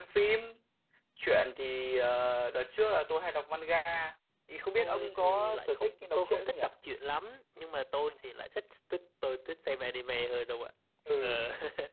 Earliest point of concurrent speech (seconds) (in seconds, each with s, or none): 4.8 s